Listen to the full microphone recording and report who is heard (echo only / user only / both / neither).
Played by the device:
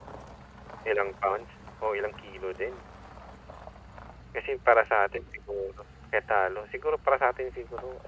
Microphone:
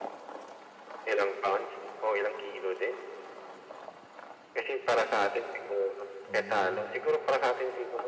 both